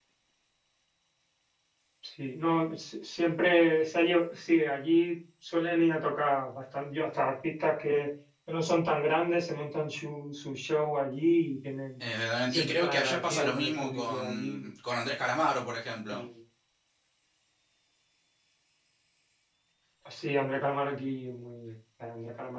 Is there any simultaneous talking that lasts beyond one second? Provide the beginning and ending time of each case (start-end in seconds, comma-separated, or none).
12.5-14.7